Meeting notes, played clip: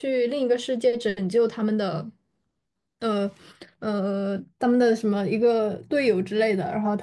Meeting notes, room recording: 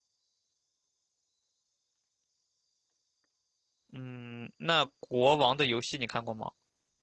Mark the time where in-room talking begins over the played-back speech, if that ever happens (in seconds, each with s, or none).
3.9 s